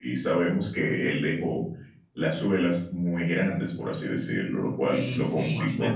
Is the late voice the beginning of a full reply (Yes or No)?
Yes